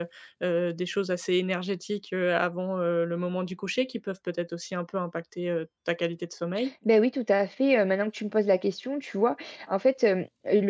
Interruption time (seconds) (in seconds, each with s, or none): none